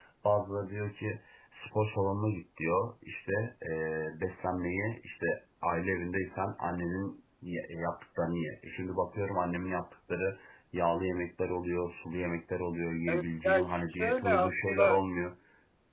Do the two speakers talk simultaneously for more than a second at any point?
Yes, from 13.1 s

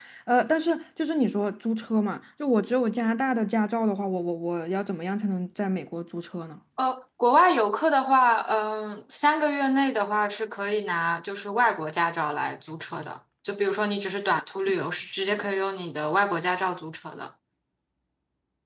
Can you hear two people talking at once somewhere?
No

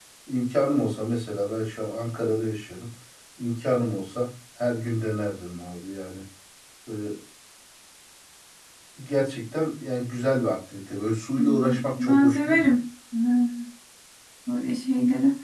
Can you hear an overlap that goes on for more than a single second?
Yes, from 11.4 s

